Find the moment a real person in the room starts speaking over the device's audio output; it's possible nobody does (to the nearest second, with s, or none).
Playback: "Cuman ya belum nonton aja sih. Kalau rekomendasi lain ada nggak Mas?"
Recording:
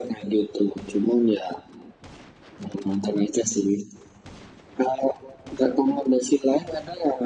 none